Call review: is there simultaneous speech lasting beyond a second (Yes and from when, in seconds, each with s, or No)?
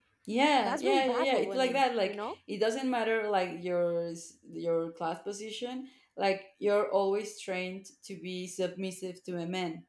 Yes, from 0.6 s